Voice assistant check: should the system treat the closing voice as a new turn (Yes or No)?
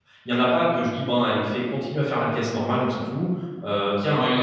Yes